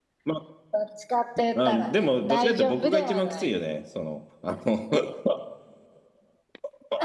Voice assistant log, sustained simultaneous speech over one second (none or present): present